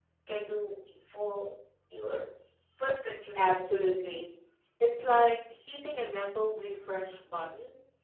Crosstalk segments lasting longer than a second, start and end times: none

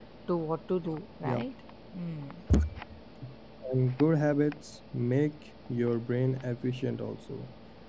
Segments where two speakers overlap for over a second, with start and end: none

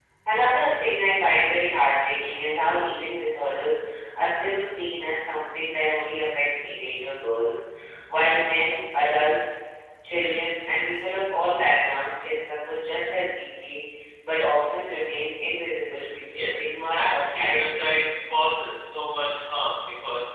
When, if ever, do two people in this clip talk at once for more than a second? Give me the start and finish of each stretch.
16.3-17.9

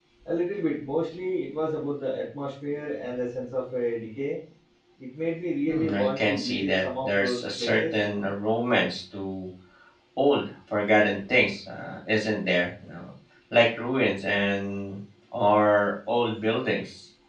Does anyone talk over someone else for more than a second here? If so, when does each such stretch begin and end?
5.7-8.0

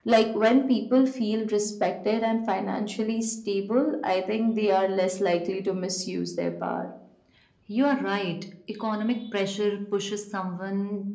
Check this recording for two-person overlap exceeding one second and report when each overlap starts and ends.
none

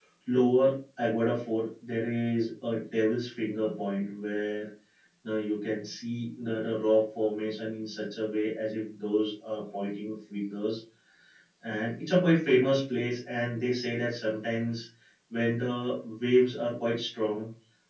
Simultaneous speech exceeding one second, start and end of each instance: none

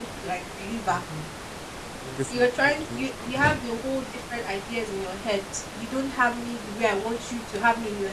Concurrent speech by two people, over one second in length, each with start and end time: 2.3-3.6

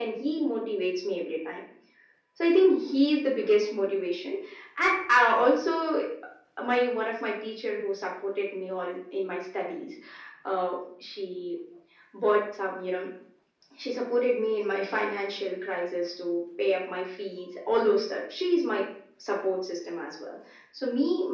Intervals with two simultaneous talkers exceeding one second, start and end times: none

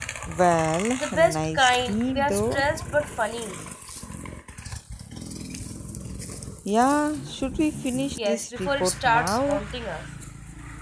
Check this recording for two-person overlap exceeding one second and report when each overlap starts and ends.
1.0-2.7, 8.2-9.6

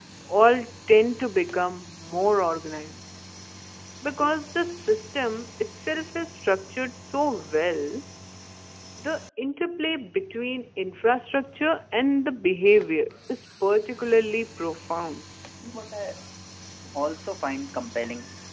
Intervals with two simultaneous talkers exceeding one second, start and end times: none

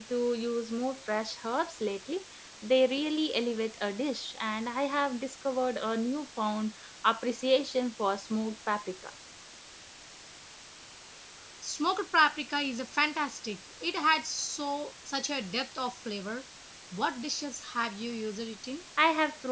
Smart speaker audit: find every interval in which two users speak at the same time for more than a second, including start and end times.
none

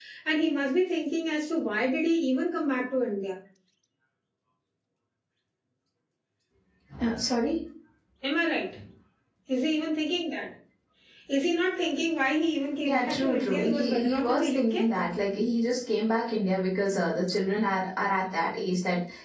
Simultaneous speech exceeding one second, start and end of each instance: 12.8-14.8

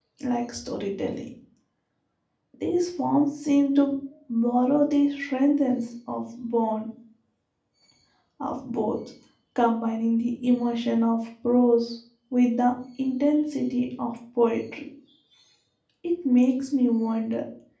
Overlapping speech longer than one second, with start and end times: none

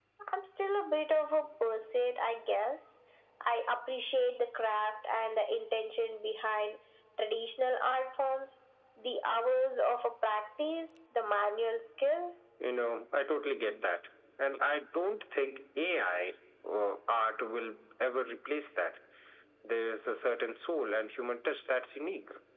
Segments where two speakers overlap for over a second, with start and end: none

